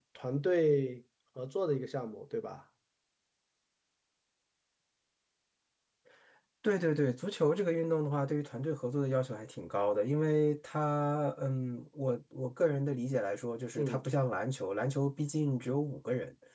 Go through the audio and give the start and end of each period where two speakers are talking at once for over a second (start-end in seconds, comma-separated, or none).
none